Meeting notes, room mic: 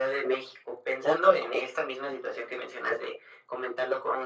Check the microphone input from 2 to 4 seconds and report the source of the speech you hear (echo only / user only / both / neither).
echo only